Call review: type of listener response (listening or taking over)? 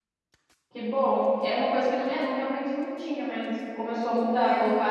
listening